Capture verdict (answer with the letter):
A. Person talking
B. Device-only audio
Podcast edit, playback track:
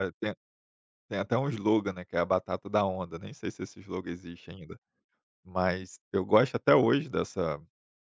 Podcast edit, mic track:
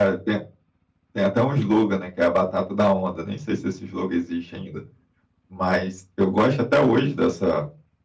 B